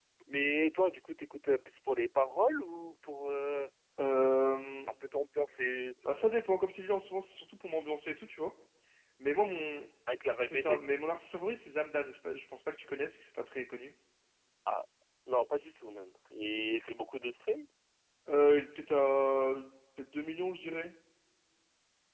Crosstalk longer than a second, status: none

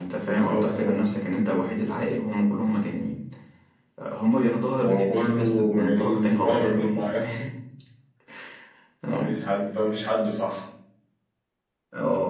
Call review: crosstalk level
present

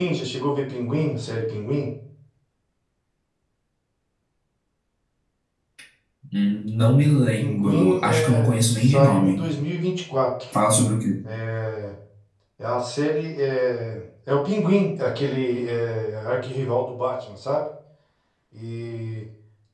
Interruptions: present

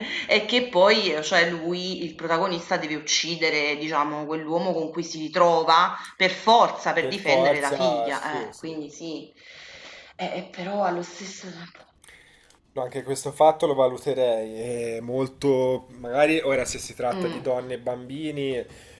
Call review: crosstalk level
present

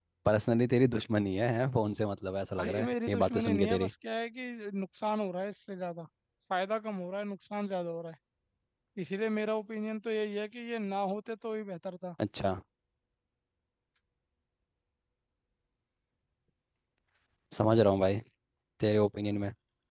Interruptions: present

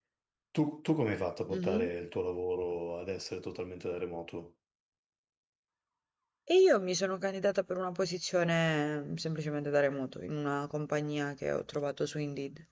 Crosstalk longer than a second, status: none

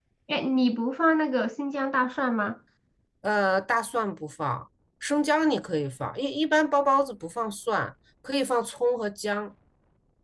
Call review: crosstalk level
none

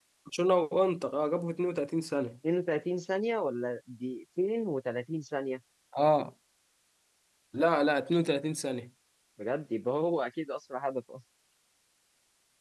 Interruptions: none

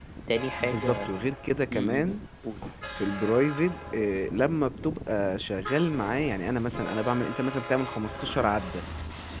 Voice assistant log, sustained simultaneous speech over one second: none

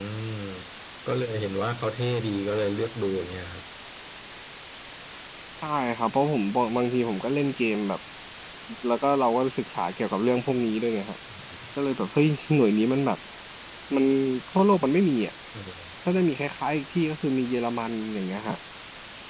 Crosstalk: none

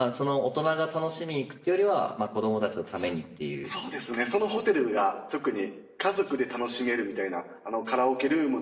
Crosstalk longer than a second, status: none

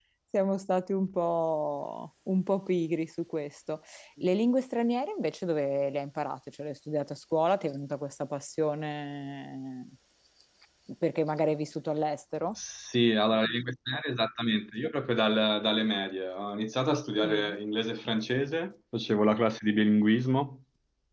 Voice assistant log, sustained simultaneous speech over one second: none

